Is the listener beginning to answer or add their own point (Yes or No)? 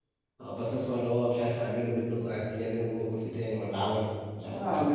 Yes